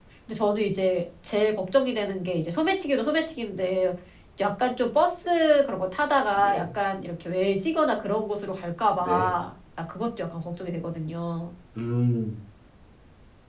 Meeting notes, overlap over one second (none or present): none